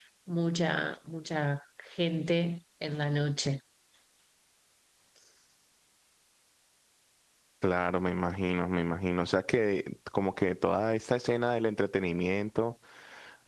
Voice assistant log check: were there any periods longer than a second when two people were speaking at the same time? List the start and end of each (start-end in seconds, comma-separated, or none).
none